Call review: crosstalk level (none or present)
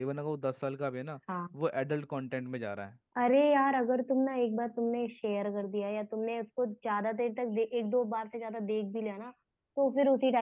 none